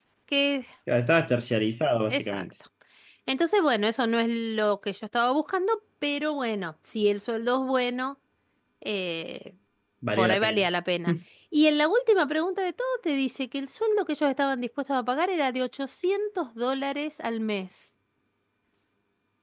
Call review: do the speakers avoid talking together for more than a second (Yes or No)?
Yes